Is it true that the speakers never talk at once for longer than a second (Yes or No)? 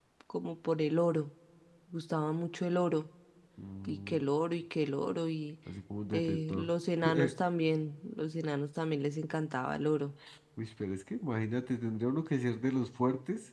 Yes